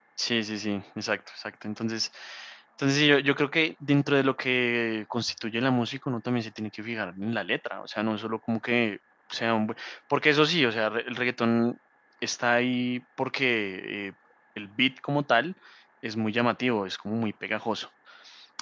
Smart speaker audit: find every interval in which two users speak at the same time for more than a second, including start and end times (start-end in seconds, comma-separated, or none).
none